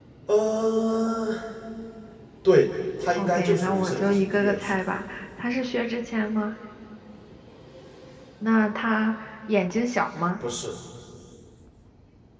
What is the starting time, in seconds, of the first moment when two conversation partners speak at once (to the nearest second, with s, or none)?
3 s